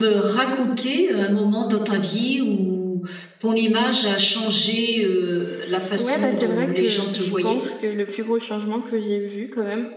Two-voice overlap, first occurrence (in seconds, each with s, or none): 5.9 s